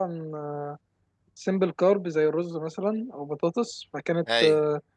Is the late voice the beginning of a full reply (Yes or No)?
No